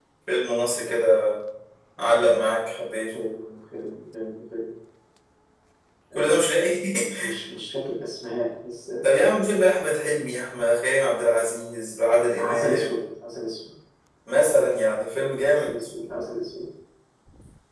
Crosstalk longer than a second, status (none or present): none